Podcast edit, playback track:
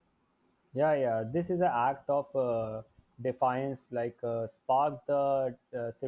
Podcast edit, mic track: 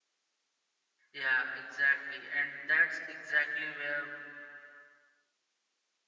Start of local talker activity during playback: 1.1 s

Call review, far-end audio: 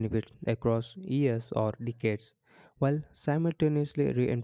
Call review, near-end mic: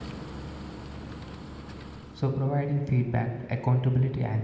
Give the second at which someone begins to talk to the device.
2.1 s

